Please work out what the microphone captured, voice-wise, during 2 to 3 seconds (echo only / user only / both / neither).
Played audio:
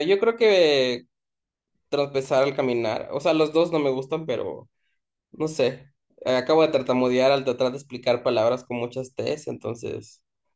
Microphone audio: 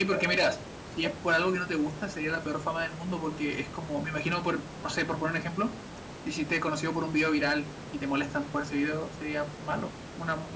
user only